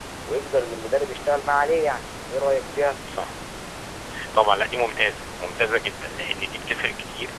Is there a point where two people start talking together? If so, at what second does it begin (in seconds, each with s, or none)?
none